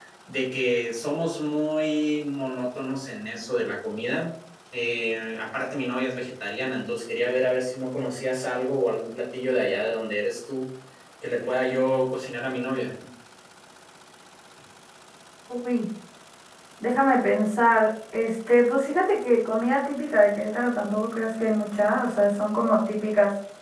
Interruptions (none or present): none